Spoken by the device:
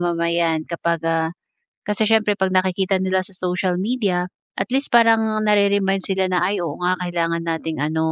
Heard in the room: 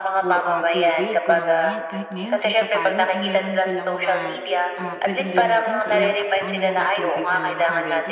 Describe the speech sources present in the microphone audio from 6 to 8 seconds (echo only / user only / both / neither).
both